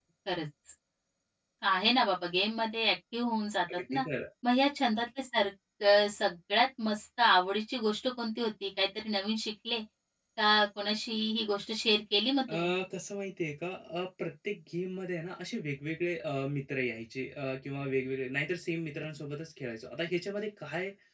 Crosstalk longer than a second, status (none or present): none